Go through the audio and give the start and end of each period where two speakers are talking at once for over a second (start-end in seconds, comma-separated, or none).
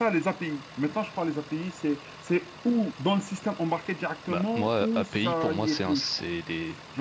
4.3-6.1